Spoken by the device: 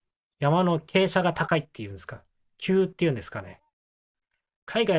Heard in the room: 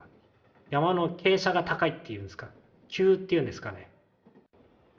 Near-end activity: none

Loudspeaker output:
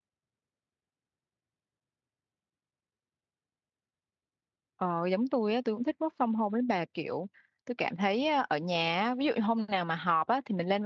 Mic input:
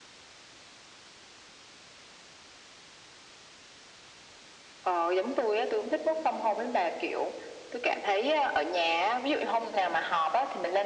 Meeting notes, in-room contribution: none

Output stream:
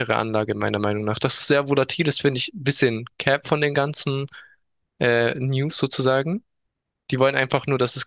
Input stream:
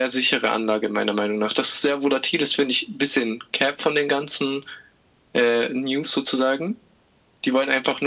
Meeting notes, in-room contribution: none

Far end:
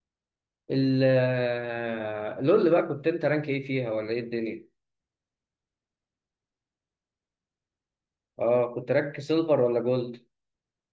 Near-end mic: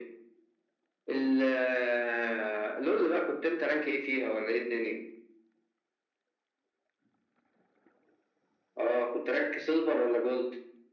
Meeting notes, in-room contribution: none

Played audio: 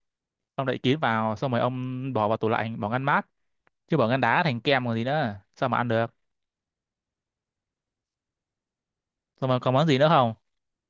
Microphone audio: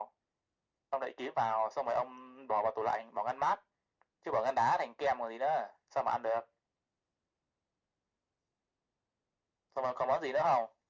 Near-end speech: none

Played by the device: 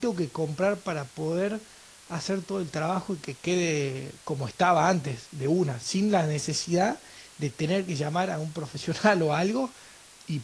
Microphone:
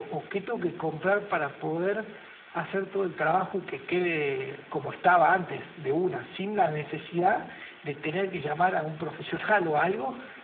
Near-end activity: none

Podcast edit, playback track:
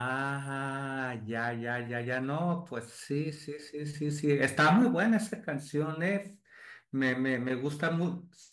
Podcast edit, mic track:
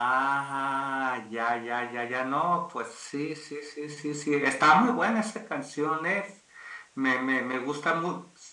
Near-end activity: none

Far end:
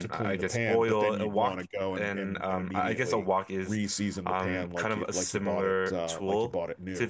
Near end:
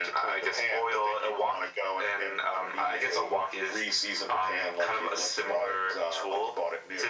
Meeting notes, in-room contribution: none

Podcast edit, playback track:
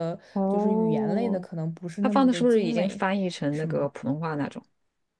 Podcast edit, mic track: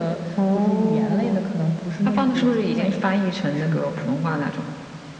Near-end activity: none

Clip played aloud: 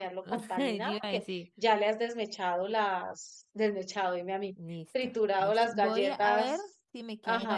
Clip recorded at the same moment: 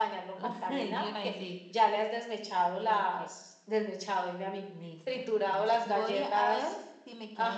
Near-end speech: present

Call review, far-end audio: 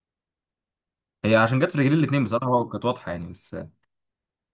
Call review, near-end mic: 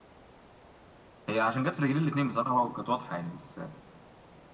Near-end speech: none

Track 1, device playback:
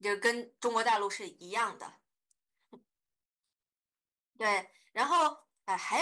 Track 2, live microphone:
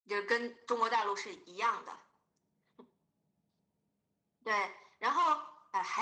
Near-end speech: none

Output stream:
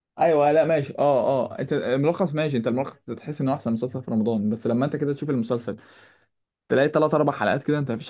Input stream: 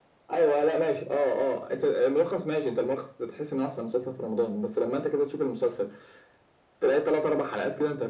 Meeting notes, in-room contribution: none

